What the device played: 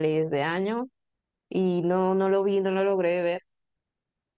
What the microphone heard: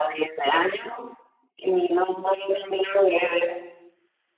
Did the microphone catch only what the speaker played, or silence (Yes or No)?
Yes